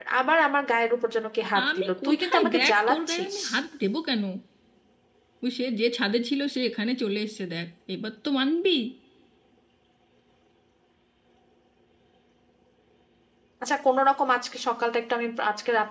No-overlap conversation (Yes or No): No